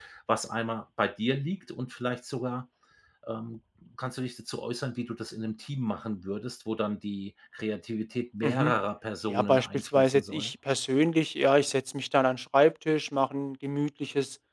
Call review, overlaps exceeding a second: present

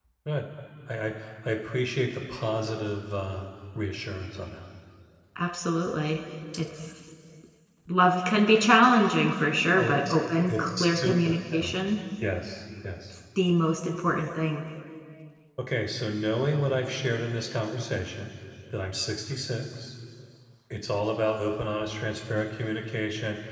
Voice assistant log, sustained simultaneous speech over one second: present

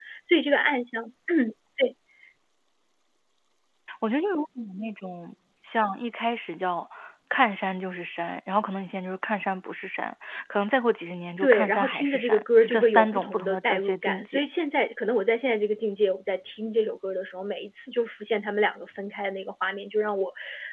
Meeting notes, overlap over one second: present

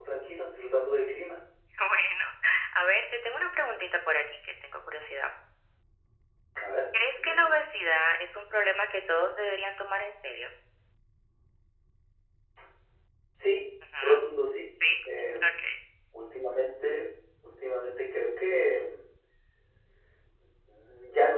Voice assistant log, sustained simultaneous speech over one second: none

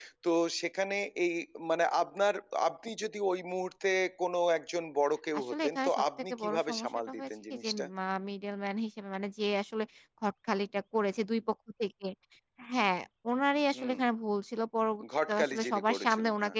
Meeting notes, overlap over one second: present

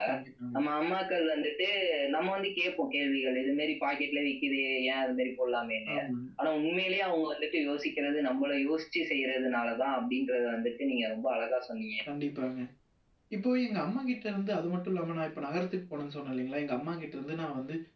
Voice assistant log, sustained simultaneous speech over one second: none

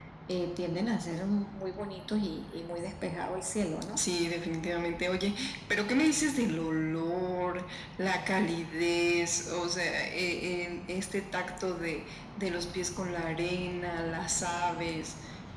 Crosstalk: none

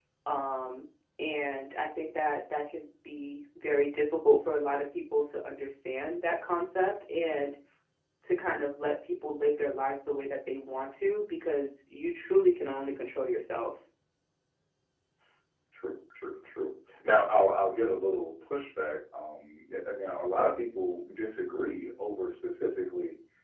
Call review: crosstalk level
none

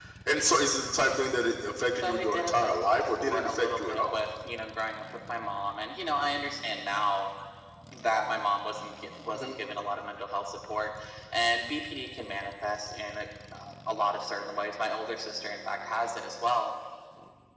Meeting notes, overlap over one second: present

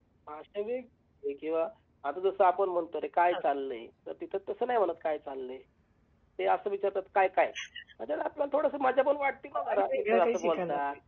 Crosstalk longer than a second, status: present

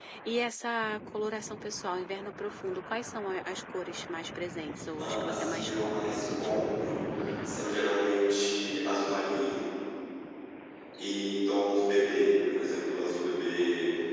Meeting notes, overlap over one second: present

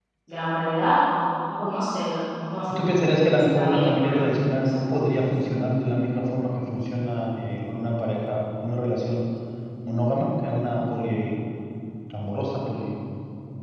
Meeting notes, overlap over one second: present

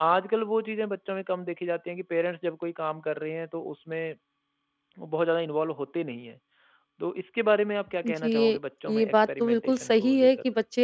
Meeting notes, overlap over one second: present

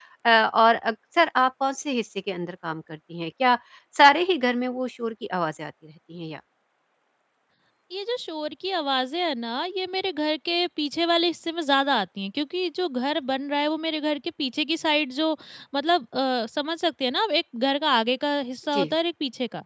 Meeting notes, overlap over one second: none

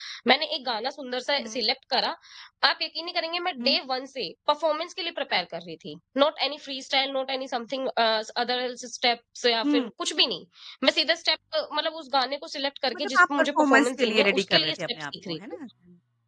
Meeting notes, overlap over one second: present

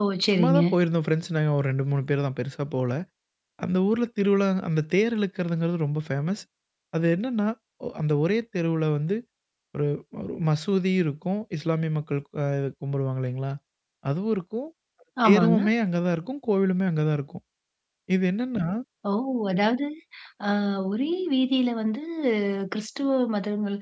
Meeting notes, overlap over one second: none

